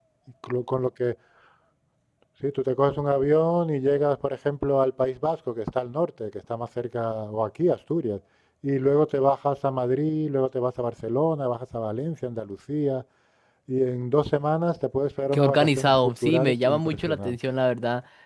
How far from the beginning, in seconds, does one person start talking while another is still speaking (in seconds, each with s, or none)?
15.3 s